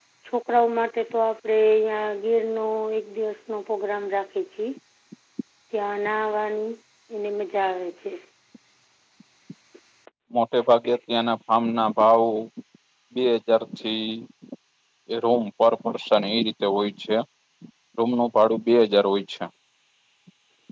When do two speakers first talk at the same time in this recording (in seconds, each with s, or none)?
none